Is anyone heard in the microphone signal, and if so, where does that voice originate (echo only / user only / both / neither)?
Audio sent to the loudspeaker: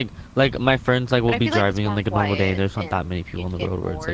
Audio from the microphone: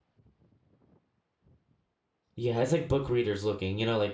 user only